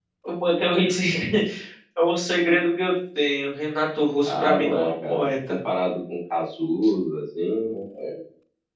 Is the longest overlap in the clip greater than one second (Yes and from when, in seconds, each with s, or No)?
Yes, from 4.2 s